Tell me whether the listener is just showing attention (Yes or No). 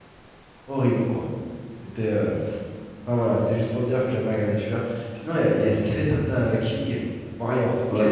No